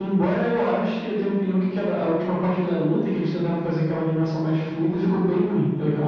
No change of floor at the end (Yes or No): No